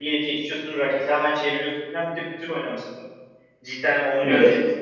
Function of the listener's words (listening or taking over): listening